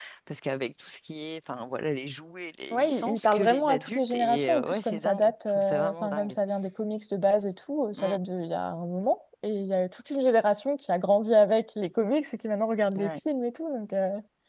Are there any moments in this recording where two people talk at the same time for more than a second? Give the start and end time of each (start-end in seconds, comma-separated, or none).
2.7-6.3